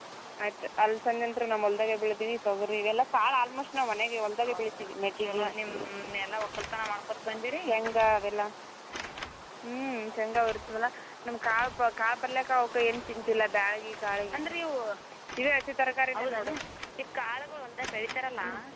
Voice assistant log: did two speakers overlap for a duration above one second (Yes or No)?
No